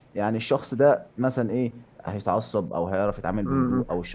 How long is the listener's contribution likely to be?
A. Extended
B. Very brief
A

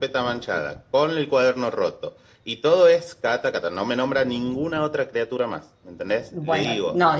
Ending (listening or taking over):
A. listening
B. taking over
B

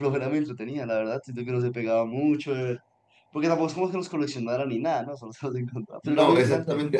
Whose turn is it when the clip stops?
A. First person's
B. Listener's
B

